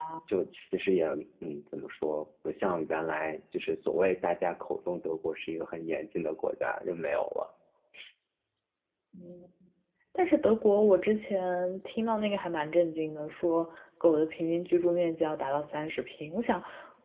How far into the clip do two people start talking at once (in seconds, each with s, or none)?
none